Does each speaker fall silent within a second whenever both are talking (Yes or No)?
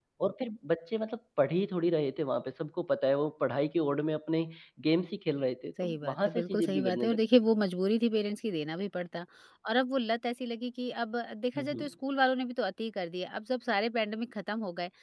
No